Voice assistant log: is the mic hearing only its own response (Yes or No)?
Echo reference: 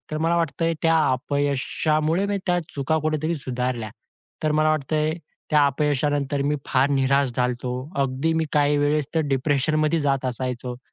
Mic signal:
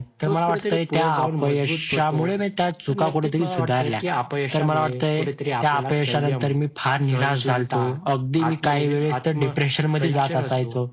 No